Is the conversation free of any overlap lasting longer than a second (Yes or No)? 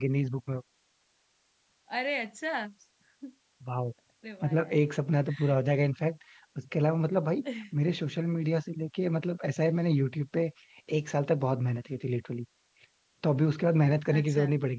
Yes